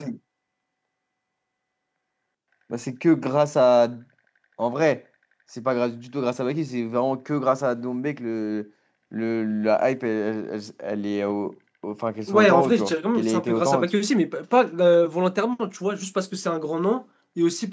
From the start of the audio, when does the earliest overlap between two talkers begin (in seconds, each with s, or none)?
12.3 s